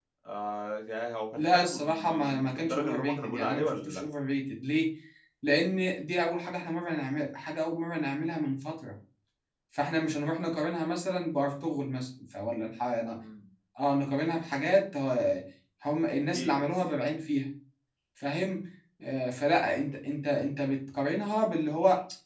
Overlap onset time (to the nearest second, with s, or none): 1 s